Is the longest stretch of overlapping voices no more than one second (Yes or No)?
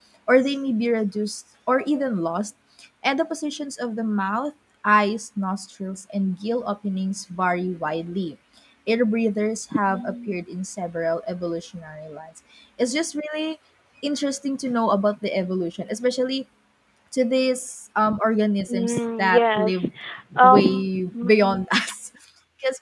No